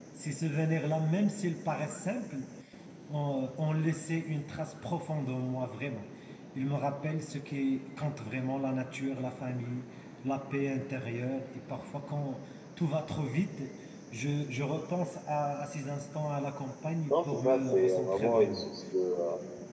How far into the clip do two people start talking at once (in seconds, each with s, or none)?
17.1 s